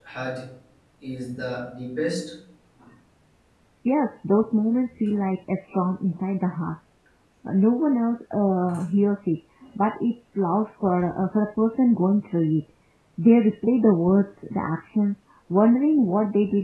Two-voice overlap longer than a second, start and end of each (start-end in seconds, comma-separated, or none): none